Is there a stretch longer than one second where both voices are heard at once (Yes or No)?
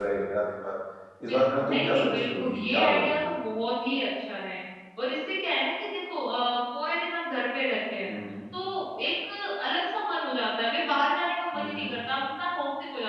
Yes